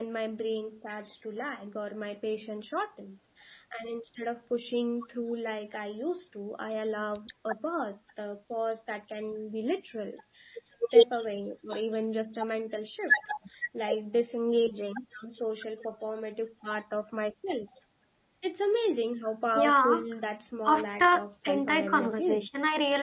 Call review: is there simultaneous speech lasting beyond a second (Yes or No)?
Yes